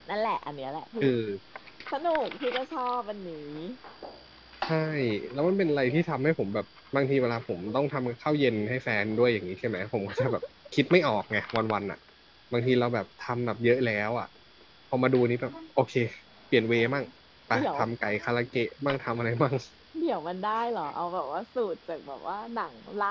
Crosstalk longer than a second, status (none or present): none